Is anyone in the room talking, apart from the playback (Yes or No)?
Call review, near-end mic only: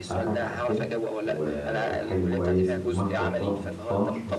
Yes